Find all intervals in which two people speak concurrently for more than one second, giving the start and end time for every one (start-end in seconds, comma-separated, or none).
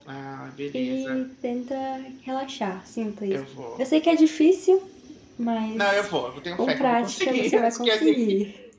6.5-8.2